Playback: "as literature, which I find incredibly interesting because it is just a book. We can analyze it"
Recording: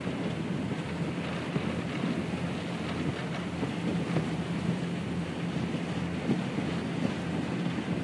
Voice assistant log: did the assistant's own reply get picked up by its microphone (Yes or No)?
No